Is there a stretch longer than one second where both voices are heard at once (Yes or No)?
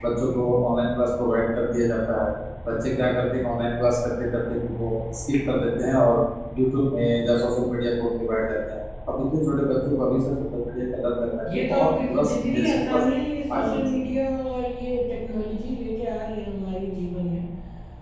Yes